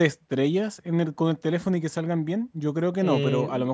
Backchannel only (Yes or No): No